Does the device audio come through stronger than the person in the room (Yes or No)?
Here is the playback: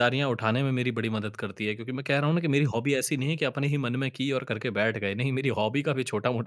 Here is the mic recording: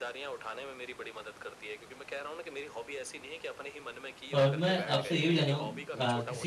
No